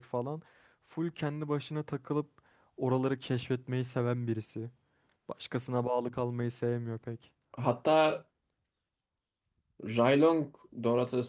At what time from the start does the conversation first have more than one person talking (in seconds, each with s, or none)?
none